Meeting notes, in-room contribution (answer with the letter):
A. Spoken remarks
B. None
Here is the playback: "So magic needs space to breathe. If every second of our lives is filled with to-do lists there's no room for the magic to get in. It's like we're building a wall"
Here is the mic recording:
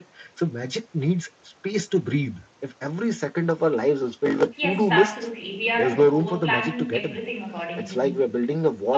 A